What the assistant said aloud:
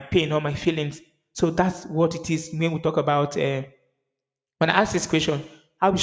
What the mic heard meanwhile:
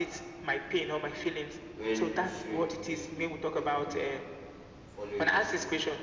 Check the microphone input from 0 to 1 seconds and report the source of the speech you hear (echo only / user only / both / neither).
echo only